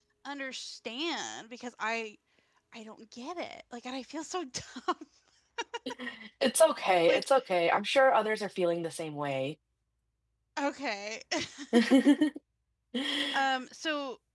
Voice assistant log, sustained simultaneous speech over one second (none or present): none